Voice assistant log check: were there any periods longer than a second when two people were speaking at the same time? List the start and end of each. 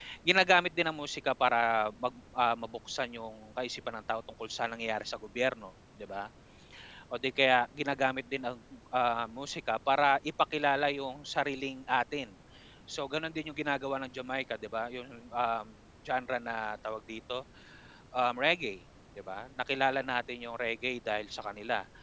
none

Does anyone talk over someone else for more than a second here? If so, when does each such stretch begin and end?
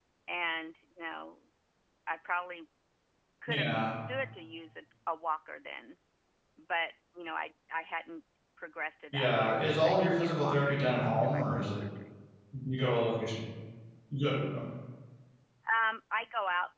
9.1-11.8

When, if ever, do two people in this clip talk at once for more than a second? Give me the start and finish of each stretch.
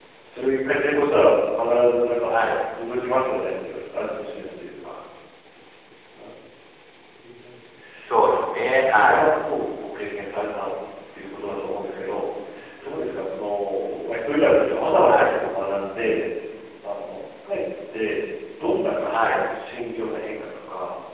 8.0-9.2

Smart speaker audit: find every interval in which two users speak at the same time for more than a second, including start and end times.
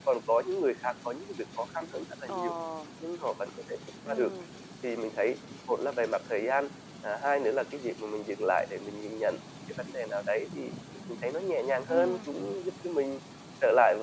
none

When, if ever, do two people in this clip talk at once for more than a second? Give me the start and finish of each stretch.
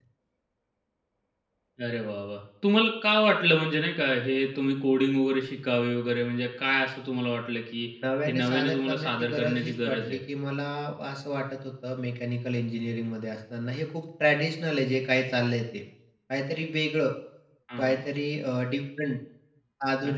8.3-10.2

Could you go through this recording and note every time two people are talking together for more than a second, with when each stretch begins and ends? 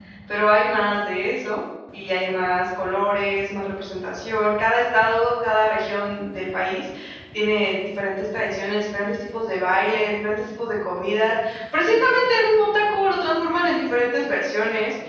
none

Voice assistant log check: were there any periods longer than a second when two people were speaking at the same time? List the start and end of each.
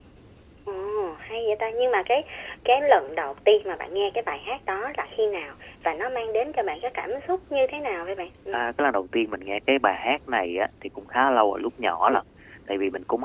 none

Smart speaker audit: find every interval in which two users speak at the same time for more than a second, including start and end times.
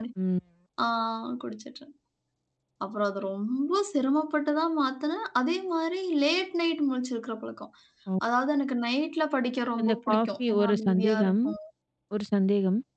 9.8-11.3

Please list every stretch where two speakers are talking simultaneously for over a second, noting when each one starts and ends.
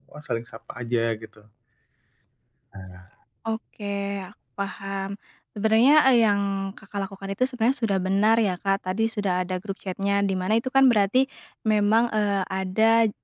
none

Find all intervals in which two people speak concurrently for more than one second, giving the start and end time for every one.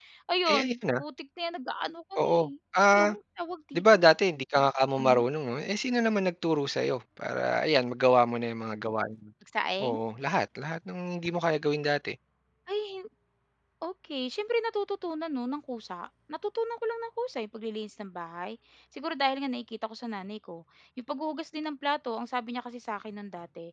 none

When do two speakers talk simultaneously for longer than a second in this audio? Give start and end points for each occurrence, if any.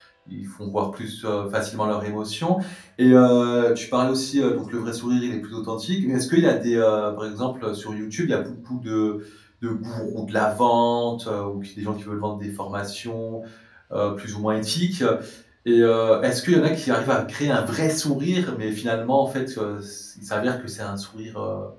none

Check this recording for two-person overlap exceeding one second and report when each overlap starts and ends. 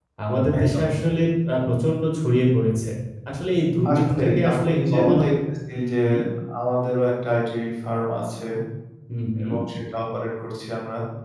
3.9-5.2

